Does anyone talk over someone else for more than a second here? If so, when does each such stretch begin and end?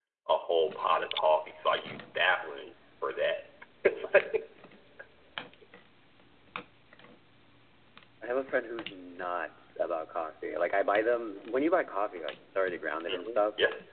none

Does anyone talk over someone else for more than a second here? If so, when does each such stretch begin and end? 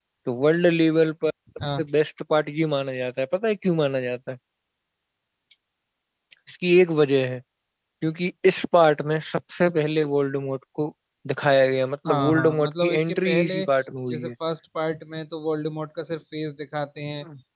12.1-13.6

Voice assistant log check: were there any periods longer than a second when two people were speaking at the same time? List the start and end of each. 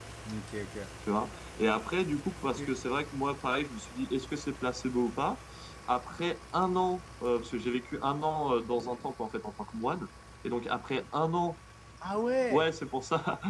none

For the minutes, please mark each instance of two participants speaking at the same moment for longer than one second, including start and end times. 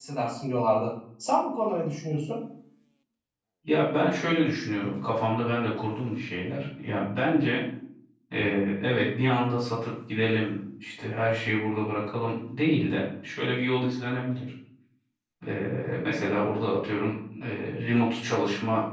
none

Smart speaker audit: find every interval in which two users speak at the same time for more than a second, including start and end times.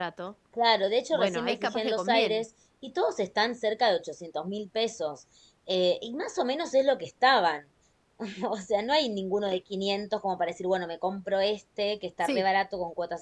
1.1-2.4

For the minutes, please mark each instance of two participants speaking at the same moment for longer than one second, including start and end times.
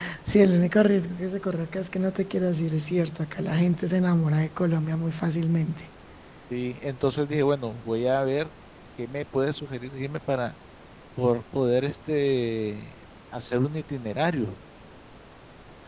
none

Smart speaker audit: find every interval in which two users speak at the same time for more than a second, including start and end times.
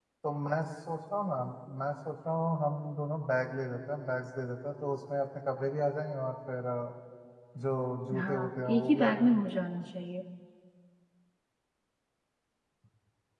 8.2-9.4

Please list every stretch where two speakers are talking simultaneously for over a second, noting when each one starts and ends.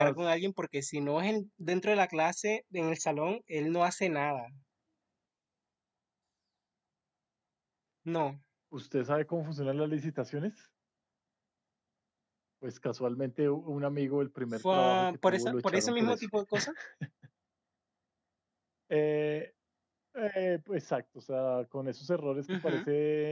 14.7-16.3

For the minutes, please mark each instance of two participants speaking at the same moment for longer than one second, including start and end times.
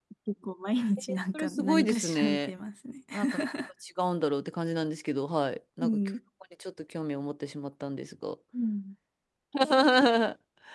1.1-2.5

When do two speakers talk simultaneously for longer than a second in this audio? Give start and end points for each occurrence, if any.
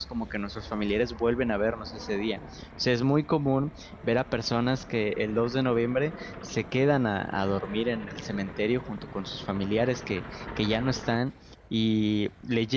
none

